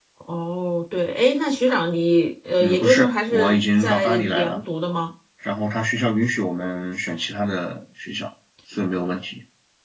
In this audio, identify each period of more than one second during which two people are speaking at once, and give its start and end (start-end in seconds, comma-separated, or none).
2.6-4.6